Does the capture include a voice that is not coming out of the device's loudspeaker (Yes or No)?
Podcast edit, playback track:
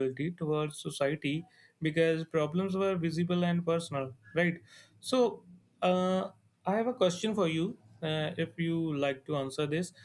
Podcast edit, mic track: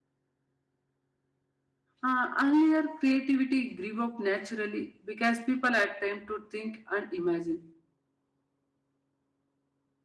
Yes